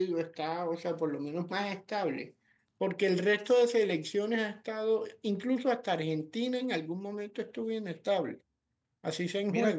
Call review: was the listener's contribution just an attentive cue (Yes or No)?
No